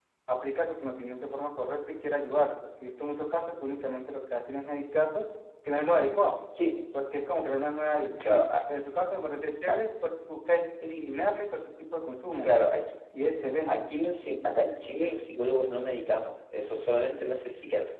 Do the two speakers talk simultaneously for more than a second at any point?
No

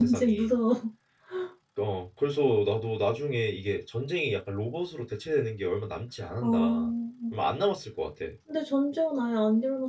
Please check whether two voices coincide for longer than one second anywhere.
No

